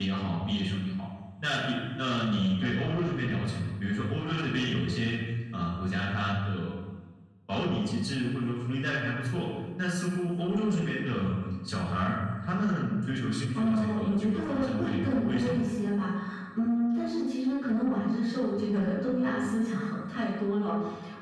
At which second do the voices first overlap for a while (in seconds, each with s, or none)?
13.5 s